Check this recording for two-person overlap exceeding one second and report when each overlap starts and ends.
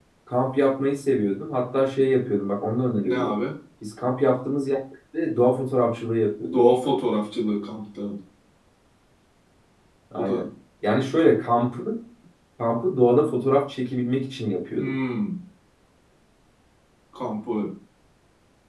none

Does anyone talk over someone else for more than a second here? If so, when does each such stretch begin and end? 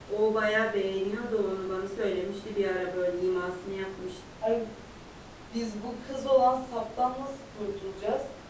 none

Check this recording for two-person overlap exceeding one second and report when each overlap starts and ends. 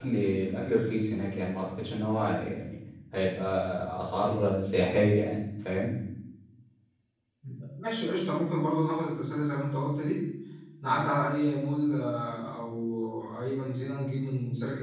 none

